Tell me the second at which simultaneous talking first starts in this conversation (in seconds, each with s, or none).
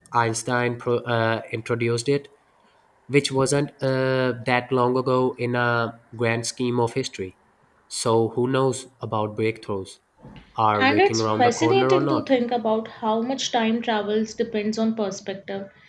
10.8 s